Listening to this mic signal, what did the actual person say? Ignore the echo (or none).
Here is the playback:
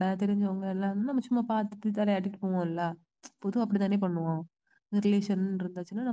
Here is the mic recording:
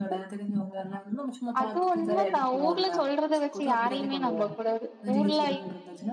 அது உண்மதா ஊர்ல சொல்றத வச்சு யாரையுமே நம்ப கூடாது ஊர்ல